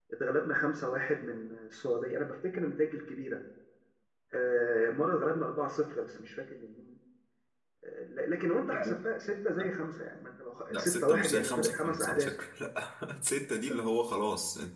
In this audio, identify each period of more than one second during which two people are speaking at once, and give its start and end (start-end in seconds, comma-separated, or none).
10.7-12.3